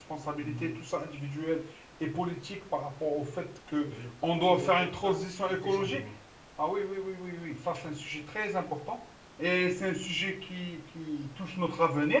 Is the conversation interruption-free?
No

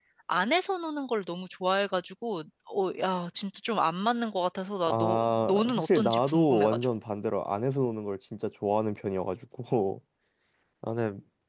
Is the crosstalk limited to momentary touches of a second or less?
No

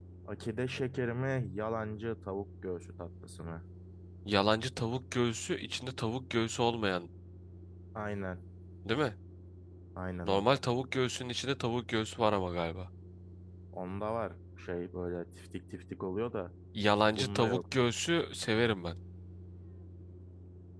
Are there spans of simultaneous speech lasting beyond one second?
No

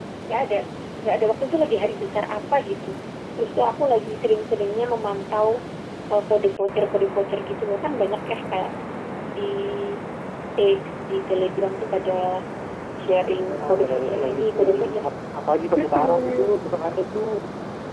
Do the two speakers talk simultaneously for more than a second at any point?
Yes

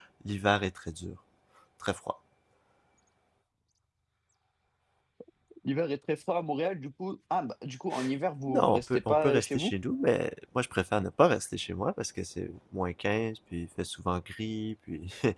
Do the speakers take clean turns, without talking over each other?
No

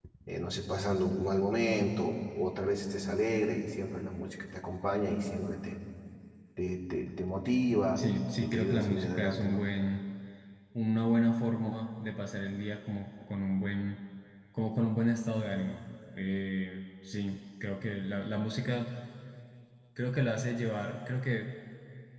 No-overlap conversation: No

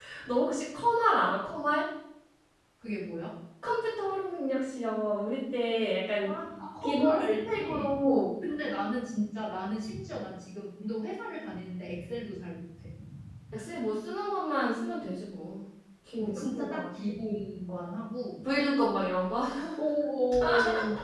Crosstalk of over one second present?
Yes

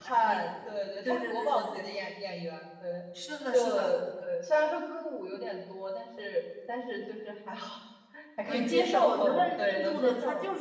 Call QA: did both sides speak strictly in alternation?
No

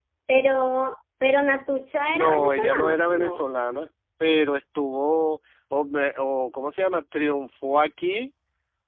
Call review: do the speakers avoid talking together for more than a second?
No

